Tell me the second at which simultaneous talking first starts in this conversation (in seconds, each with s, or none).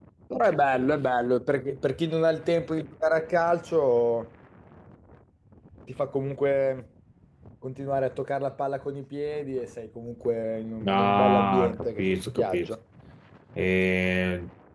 10.8 s